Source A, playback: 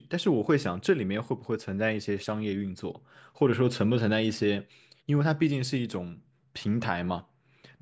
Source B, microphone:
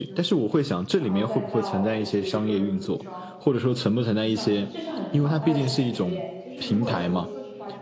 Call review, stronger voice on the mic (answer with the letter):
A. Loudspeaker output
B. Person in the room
A